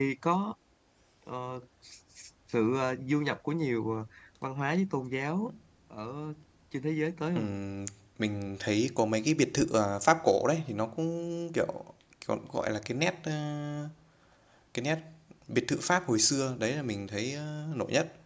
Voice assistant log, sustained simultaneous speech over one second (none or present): none